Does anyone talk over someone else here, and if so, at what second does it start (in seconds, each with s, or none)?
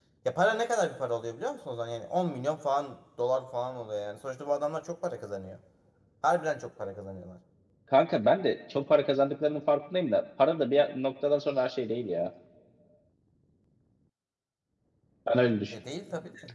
none